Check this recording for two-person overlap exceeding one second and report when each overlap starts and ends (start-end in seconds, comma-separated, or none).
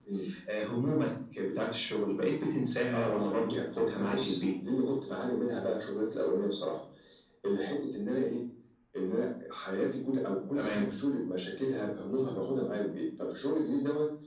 2.9-4.4